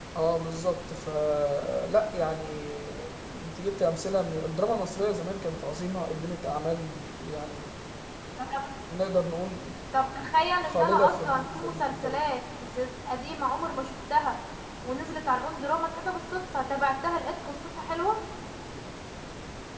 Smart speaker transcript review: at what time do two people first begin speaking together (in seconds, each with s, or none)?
10.6 s